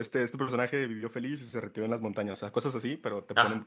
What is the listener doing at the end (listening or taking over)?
listening